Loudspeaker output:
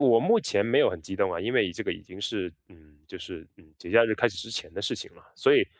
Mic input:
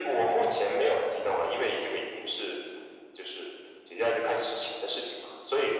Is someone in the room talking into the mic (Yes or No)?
No